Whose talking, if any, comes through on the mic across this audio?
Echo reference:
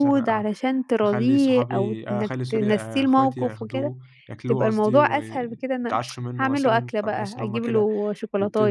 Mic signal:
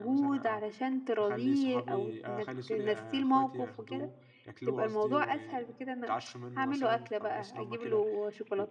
echo only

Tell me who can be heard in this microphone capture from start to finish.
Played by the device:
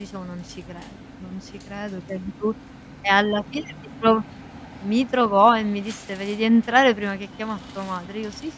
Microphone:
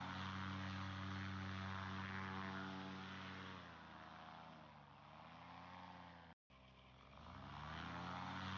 neither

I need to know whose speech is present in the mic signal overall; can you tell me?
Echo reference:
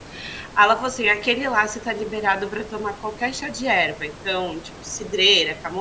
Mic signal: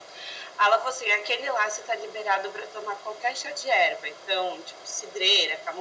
echo only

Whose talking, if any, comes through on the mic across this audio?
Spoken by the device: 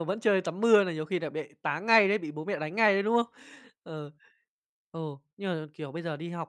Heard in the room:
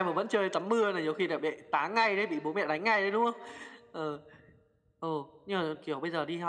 echo only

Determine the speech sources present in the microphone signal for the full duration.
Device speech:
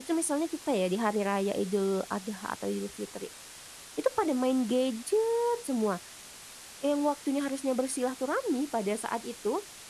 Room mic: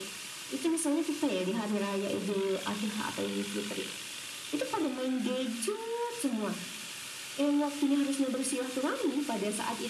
echo only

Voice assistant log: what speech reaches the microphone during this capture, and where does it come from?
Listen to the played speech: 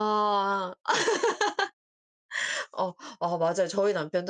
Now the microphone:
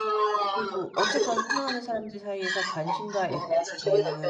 both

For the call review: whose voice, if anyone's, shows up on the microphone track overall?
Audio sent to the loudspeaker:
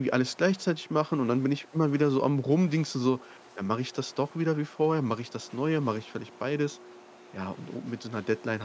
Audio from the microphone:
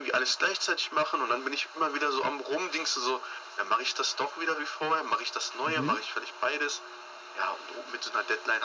both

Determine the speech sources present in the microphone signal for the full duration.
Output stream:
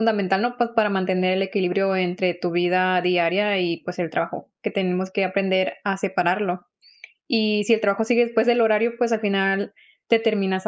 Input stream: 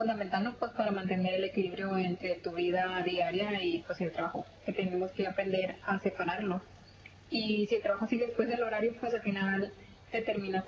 echo only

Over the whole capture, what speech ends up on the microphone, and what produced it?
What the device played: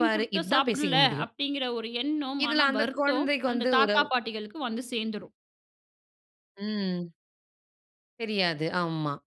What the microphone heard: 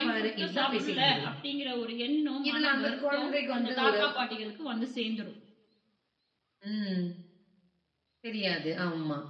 echo only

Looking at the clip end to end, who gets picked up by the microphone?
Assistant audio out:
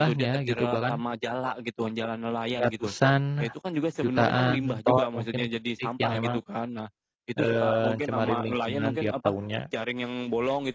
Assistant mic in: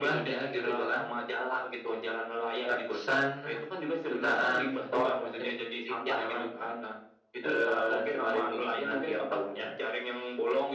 echo only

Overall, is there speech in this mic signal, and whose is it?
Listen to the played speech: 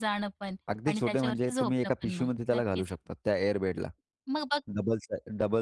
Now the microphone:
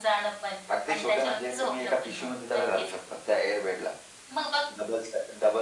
echo only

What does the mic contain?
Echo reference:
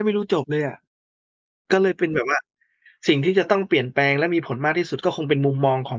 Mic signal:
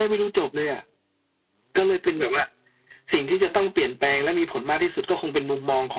echo only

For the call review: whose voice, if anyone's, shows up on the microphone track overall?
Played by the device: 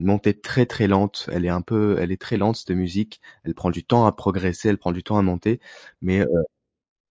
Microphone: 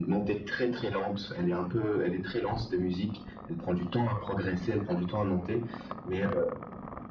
echo only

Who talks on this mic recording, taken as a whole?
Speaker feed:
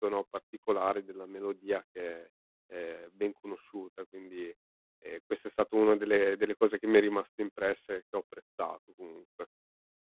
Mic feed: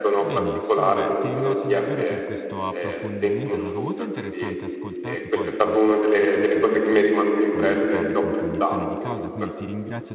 both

